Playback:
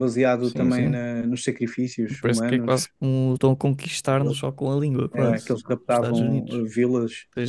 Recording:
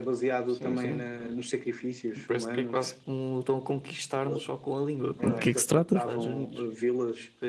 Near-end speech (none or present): present